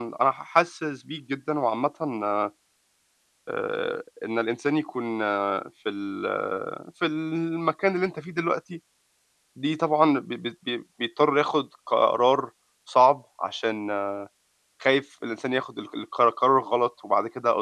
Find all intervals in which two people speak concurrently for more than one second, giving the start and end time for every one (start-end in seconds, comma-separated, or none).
none